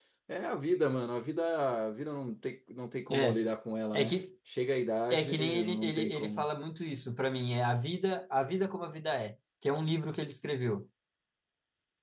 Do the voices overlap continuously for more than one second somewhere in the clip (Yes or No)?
Yes